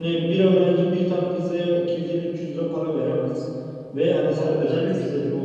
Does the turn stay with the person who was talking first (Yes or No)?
Yes